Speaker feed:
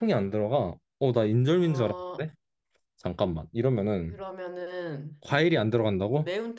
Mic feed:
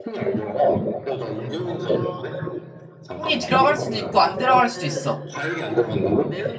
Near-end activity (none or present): present